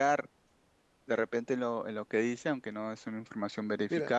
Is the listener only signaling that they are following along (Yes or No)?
No